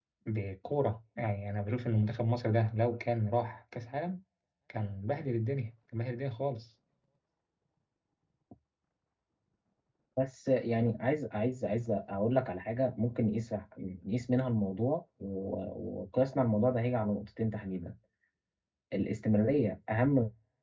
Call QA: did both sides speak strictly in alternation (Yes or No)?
Yes